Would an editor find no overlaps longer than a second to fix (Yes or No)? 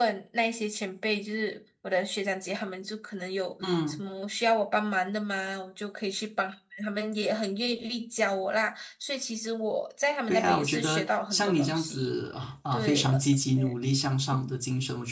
No